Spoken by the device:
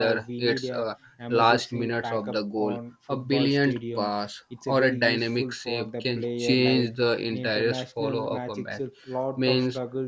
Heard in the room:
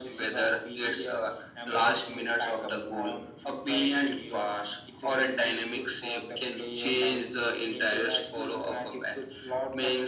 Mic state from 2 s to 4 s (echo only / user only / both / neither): echo only